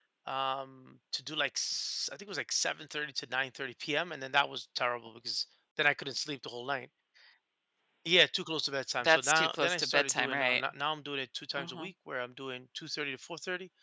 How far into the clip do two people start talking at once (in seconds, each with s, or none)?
9.0 s